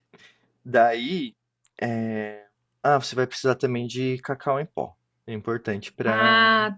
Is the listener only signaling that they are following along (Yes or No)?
Yes